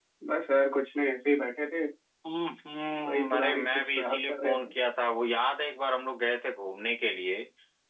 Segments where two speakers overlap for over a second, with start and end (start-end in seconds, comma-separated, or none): 3.1-4.7